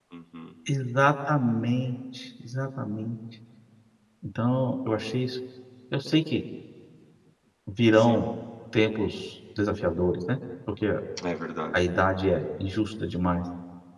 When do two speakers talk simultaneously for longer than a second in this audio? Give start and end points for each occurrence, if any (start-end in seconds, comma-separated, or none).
none